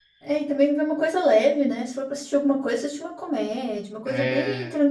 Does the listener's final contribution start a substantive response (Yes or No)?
No